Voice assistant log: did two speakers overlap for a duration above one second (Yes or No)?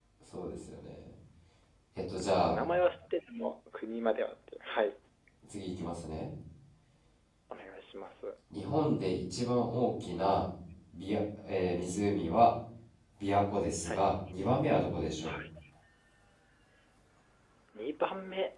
No